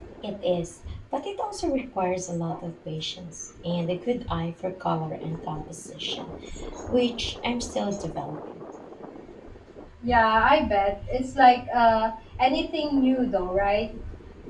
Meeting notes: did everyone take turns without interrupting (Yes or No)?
Yes